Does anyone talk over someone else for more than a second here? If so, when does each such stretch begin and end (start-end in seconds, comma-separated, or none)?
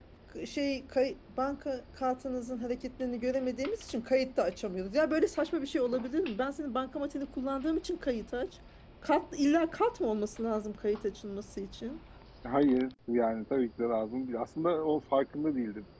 none